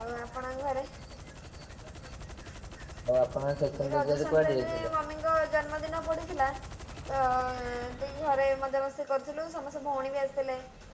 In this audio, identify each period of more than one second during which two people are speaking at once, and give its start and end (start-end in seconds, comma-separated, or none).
3.7-4.9